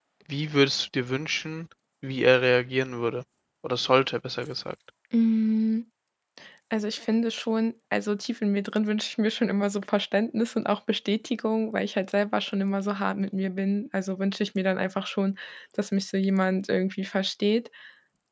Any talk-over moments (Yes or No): No